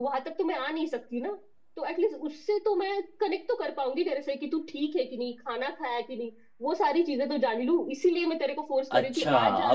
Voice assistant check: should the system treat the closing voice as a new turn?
Yes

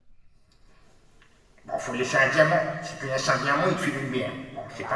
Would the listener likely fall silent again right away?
No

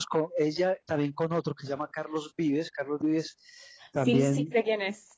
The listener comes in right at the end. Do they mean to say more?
Yes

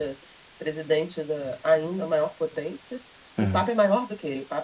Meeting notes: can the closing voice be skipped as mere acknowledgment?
Yes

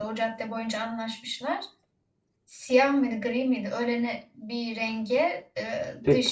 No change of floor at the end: Yes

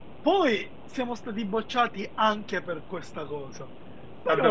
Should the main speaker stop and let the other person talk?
Yes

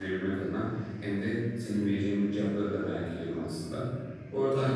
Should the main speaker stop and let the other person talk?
No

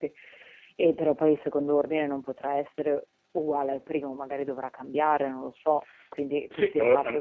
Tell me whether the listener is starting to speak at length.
Yes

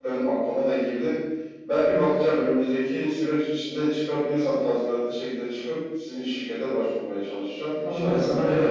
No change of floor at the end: No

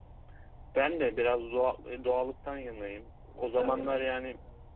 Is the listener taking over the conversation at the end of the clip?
No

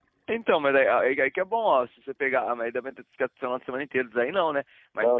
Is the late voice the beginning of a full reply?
No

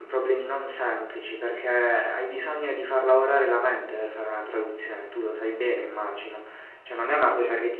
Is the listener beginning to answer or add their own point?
No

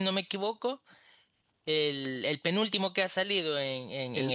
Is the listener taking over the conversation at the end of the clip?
No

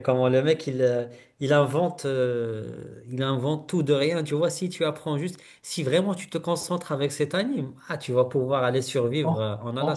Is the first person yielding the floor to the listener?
Yes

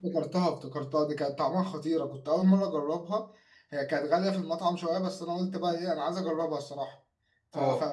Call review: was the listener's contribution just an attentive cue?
Yes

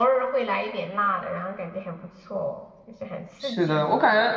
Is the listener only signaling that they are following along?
No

